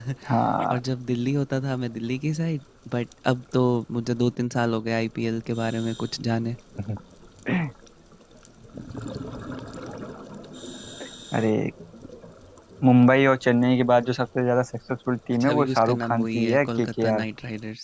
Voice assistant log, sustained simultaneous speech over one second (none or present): present